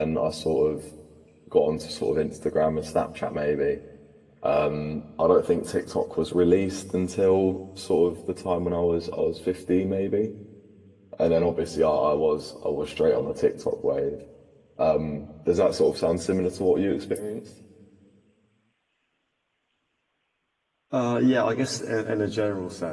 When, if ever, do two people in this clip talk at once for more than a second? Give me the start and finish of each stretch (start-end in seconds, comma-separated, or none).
none